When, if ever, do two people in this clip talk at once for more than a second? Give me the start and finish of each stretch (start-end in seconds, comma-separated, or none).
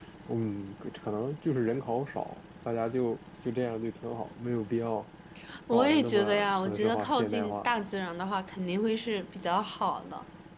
5.7-7.7